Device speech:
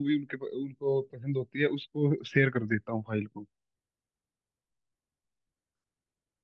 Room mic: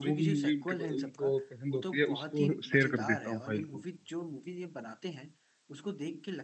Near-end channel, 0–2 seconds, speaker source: both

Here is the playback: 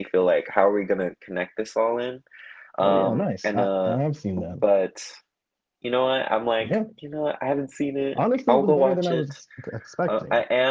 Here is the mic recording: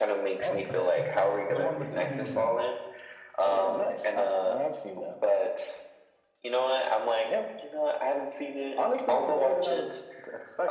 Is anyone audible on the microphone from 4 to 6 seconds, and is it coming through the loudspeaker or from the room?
echo only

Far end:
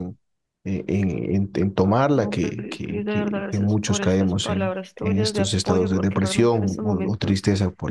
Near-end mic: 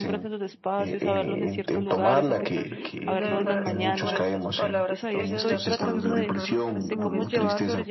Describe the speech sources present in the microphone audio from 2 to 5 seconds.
both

